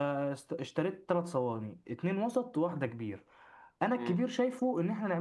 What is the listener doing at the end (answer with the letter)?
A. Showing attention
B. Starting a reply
A